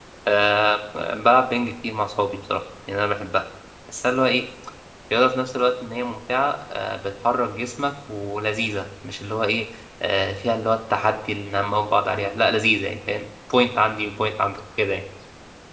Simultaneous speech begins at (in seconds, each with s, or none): none